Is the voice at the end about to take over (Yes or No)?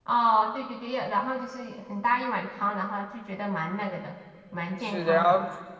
Yes